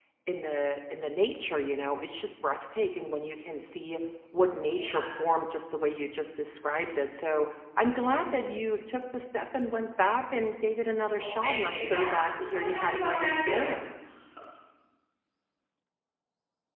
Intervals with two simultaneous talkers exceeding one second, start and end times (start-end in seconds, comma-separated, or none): 11.2-13.7